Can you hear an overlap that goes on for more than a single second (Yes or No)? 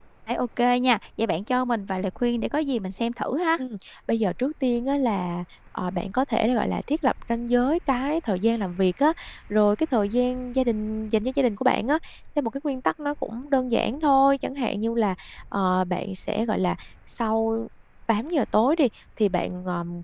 No